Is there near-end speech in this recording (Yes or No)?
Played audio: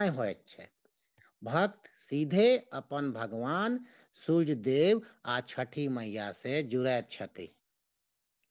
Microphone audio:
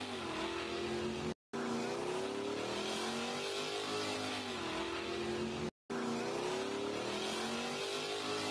No